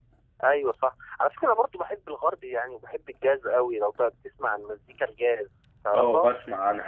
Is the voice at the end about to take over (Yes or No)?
Yes